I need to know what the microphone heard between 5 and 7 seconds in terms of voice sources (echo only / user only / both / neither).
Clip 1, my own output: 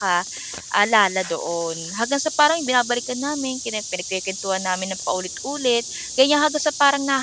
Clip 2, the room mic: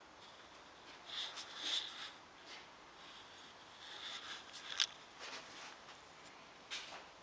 neither